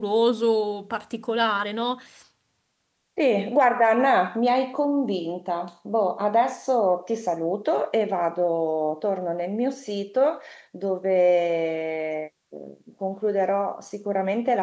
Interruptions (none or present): none